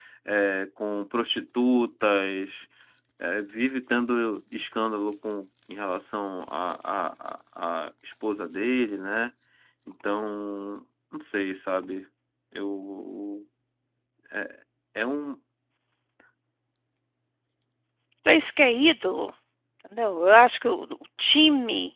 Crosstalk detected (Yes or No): No